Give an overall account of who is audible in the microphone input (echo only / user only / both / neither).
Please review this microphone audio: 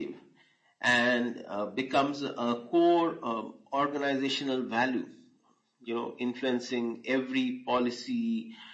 echo only